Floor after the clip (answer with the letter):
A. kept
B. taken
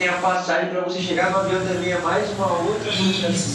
B